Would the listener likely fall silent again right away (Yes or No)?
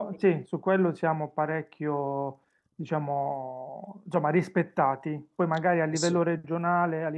Yes